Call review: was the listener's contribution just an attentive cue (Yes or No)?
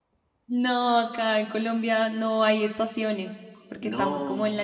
Yes